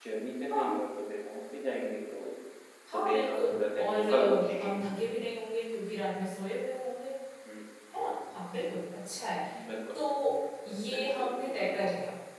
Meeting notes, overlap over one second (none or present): present